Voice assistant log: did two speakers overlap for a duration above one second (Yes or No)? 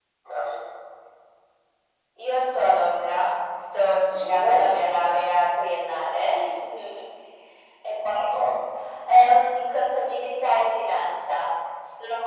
No